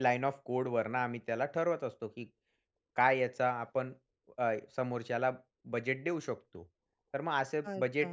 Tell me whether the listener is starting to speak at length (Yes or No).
No